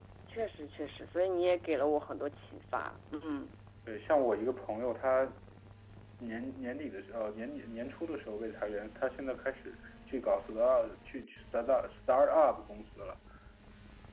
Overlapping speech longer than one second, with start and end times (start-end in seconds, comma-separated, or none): none